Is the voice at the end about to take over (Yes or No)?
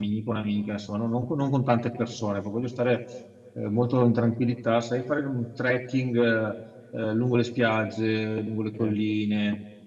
No